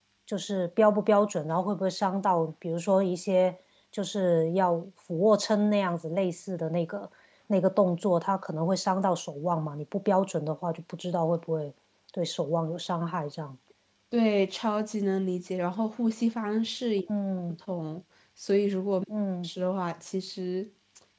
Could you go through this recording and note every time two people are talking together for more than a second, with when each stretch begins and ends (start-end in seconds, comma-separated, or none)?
none